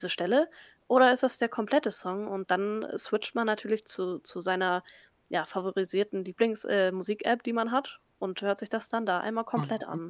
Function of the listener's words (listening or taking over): taking over